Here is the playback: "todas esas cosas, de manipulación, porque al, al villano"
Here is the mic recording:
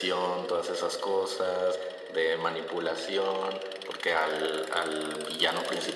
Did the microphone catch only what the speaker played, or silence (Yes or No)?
Yes